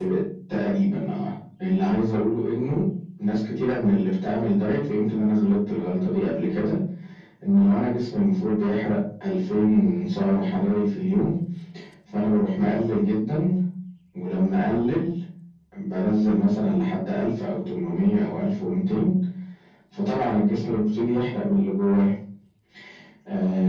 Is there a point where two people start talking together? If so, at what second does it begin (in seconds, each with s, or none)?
none